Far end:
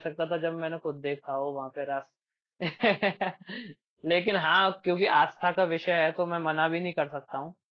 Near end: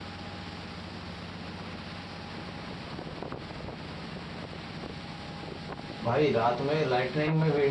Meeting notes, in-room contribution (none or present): present